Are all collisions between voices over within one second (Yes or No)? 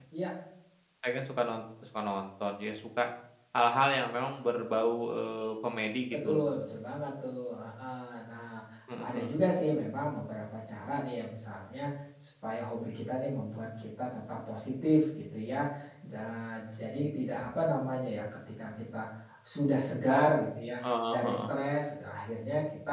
Yes